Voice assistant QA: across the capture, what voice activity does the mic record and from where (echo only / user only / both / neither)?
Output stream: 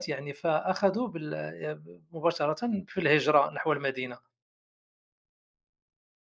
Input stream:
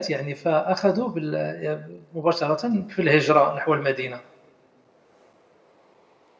echo only